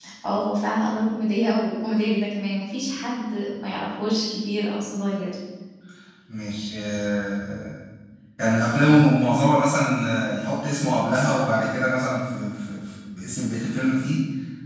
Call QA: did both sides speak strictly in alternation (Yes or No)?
Yes